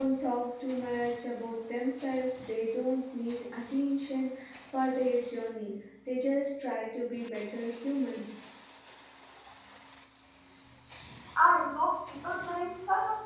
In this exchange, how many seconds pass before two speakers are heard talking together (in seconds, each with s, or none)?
none